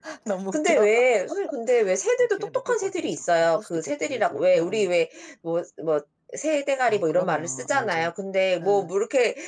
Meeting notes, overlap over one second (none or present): present